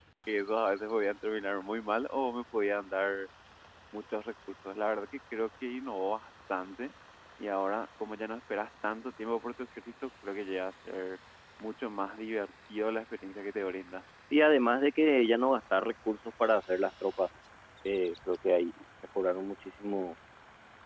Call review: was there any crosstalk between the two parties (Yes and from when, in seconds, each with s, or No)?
No